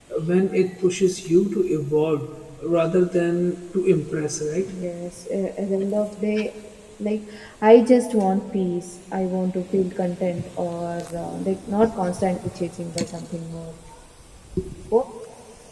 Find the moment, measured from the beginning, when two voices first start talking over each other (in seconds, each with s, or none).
none